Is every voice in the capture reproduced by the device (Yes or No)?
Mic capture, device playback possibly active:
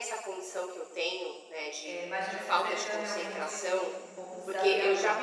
No